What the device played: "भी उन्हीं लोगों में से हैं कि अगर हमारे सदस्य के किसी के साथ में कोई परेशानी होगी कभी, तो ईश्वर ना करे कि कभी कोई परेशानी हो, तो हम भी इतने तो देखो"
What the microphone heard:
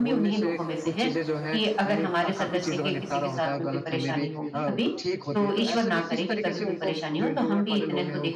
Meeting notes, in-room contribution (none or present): present